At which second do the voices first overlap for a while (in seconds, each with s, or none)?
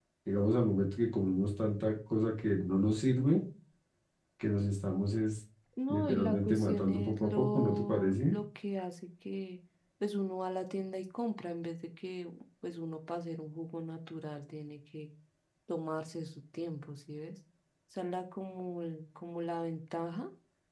5.9 s